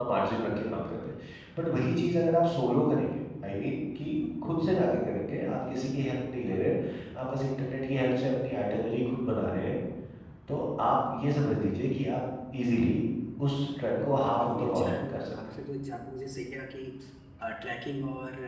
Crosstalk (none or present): present